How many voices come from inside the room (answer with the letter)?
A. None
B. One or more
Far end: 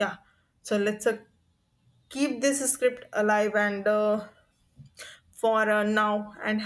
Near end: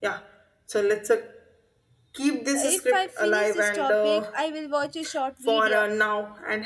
B